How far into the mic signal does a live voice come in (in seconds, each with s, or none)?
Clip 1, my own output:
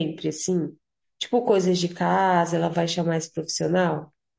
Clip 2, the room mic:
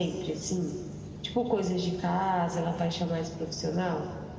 none